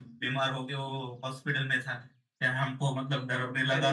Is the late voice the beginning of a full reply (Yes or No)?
No